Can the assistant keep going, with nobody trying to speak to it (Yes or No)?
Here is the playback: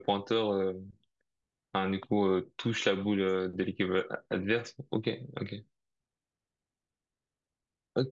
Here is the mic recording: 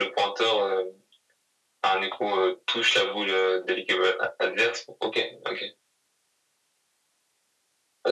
Yes